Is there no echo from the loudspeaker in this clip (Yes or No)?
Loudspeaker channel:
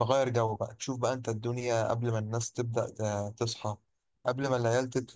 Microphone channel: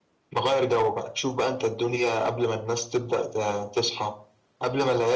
No